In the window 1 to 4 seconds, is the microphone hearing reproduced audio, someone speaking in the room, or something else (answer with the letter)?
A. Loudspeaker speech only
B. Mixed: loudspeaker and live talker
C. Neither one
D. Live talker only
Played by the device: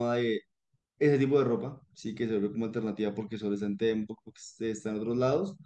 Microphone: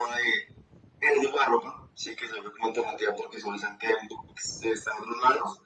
A